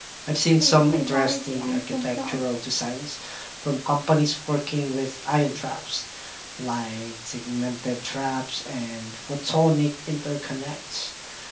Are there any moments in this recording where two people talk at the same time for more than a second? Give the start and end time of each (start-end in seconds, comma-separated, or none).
0.6-2.4